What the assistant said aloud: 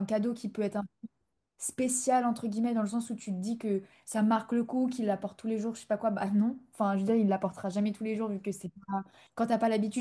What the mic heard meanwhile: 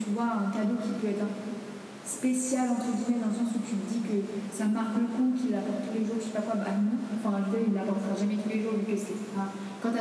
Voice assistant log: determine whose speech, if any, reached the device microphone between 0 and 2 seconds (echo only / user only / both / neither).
echo only